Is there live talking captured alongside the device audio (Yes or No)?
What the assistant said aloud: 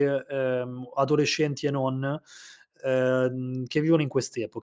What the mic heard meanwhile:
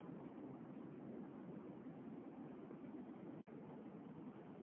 No